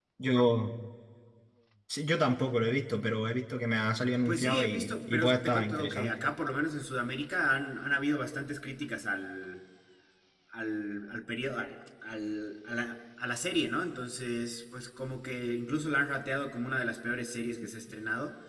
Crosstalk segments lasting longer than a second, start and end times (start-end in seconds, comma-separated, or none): 4.2-6.2